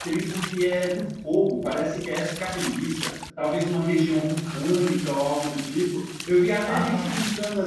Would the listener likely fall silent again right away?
Yes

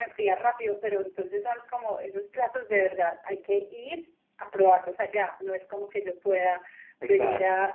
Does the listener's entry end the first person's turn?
No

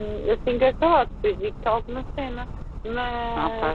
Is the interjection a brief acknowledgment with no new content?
Yes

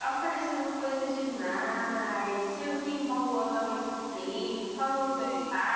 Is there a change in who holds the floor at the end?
No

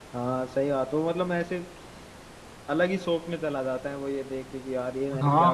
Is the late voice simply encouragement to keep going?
No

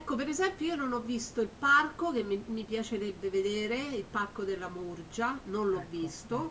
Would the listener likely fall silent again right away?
Yes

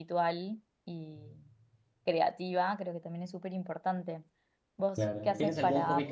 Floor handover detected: Yes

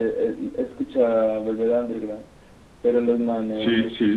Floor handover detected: No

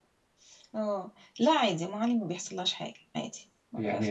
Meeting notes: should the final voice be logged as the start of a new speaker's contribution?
Yes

